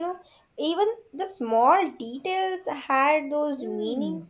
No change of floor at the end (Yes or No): No